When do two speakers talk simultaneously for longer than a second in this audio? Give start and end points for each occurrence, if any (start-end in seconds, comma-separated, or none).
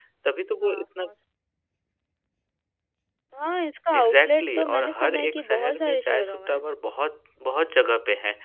4.0-6.6